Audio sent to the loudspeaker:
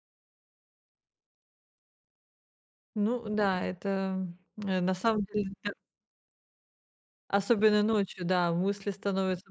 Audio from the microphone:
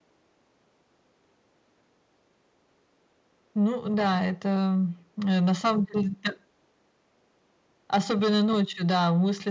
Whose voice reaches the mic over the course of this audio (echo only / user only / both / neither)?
echo only